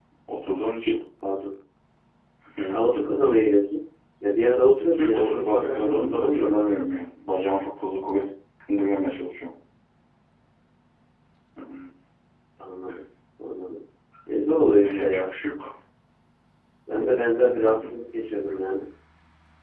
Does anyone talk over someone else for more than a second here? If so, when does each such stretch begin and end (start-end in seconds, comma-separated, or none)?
5.0-6.5